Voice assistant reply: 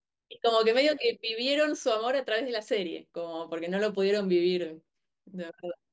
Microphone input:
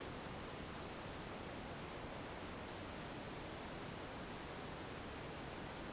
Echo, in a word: none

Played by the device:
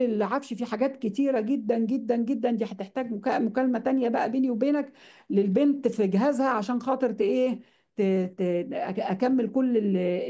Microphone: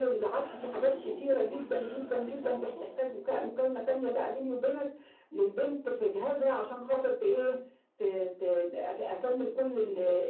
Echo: present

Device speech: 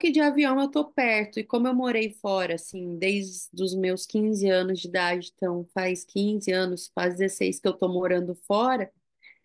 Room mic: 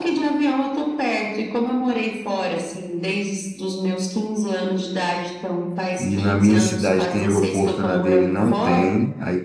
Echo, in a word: present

